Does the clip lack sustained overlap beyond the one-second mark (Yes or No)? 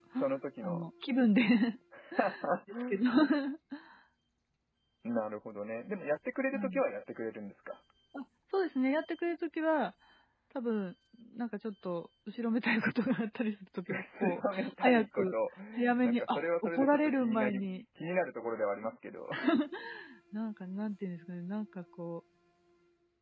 No